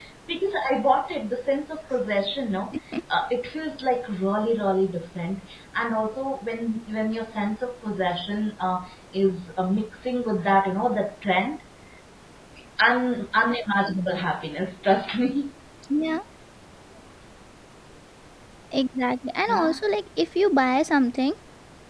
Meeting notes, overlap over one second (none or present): none